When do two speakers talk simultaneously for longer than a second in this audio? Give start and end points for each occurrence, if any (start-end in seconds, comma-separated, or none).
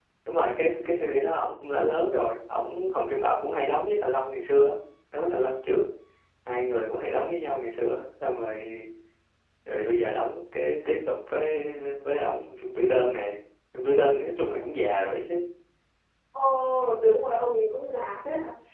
none